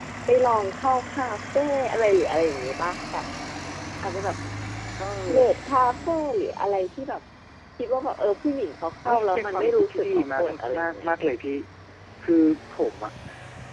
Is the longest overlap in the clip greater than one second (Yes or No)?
Yes